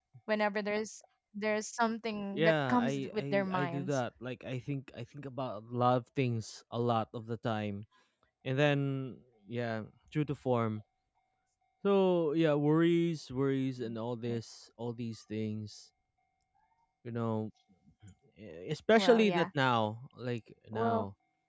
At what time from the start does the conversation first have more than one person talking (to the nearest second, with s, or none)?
2 s